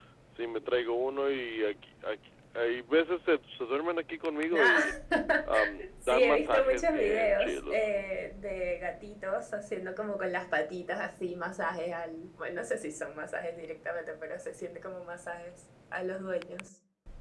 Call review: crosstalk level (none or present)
present